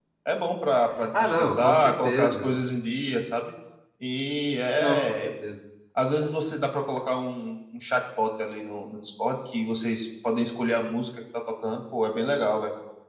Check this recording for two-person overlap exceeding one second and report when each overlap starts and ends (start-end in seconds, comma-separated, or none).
1.1-2.5